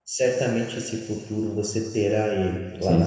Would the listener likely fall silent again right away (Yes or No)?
No